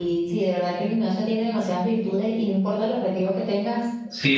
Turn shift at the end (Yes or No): Yes